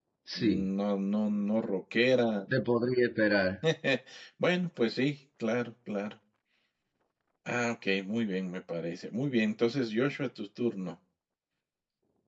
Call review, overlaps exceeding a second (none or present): none